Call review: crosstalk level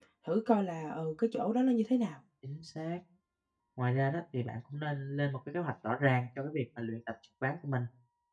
none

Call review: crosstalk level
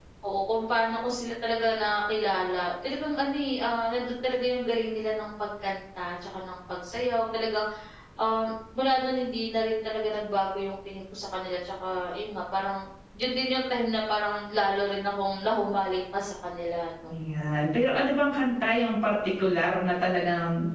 none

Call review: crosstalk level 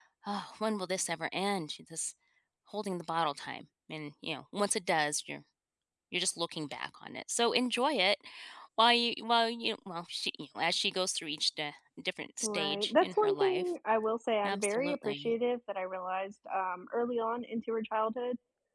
present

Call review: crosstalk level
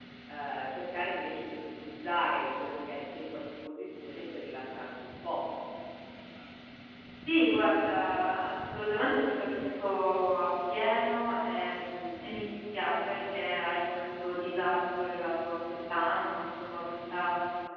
none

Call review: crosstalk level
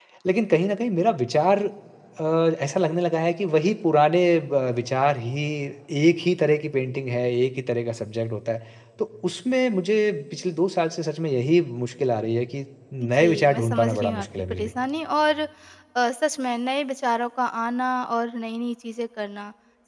present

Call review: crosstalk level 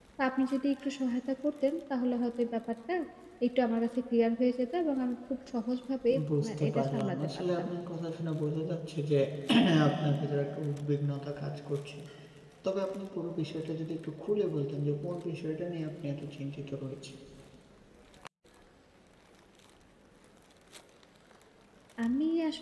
present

